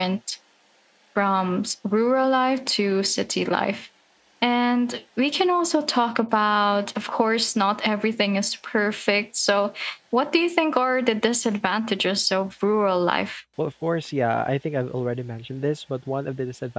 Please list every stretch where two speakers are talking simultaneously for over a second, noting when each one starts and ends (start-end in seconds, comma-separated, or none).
none